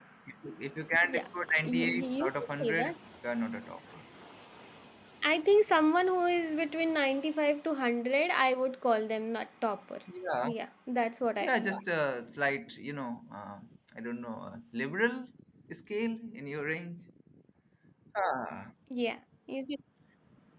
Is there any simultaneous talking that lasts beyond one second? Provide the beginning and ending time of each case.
1.6-2.9

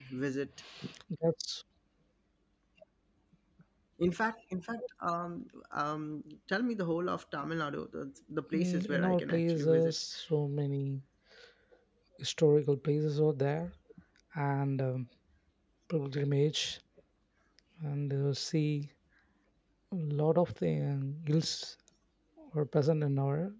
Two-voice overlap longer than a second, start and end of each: 8.5-9.9

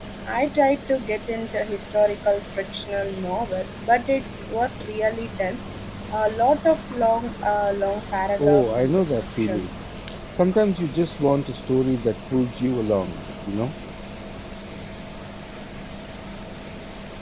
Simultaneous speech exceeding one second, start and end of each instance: 8.4-9.7

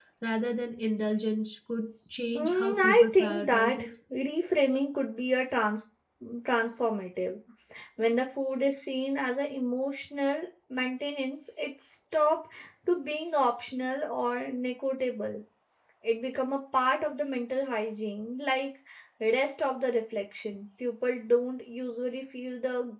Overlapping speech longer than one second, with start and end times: 2.4-3.9

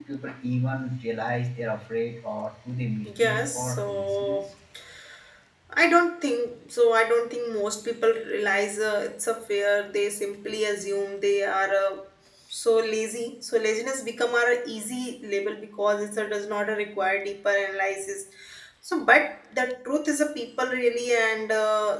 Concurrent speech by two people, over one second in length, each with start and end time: 3.0-4.4

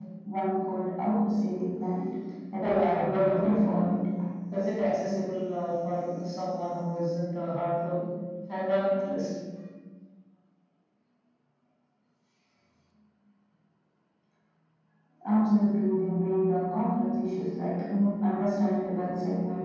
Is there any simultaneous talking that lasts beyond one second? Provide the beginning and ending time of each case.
2.6-3.9

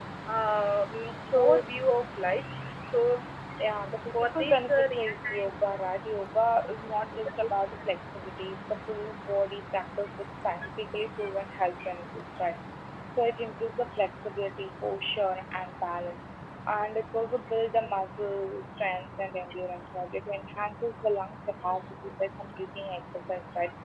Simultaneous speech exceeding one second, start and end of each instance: 4.2-5.8

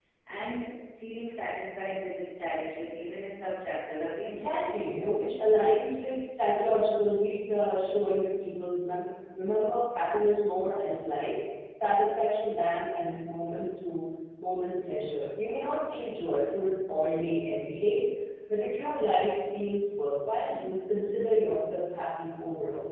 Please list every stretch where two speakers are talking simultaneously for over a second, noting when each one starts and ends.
none

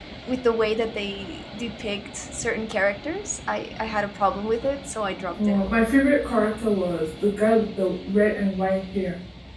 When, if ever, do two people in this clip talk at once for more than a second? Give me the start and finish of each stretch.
none

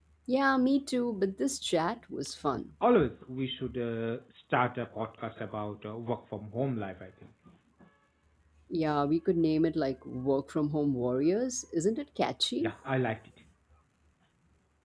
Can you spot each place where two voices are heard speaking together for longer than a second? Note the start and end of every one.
none

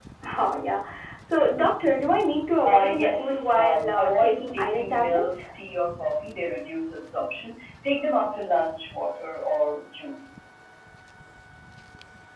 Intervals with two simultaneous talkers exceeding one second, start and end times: 2.6-5.4

